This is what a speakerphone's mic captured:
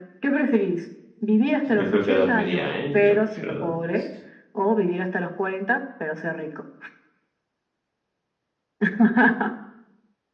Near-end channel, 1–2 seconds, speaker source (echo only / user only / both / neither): both